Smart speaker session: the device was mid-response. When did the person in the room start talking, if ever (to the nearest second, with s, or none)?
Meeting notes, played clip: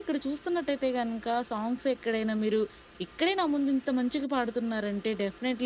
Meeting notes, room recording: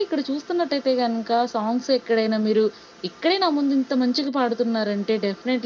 none